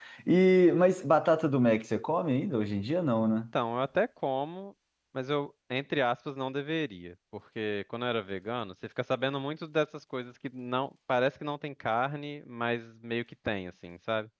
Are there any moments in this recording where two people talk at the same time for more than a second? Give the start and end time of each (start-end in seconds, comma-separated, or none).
none